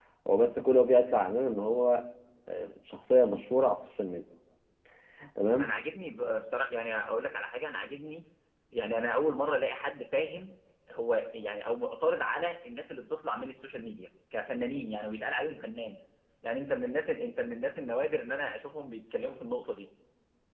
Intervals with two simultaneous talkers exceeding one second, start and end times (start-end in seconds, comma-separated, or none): none